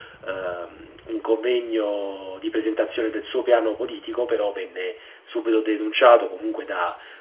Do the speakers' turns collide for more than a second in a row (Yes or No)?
No